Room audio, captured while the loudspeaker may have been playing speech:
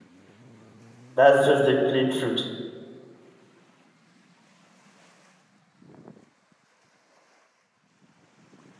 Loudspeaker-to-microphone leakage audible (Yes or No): No